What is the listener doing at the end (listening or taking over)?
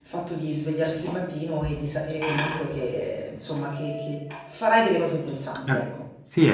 taking over